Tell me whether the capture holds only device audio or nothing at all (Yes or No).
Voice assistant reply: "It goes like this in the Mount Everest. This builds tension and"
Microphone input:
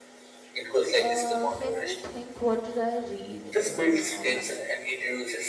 No